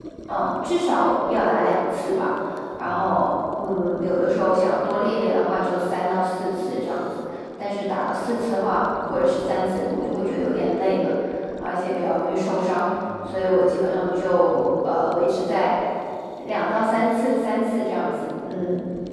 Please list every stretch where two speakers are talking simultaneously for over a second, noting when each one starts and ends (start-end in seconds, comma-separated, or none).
none